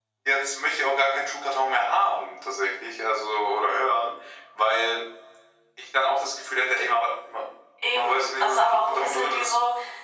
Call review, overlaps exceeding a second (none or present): present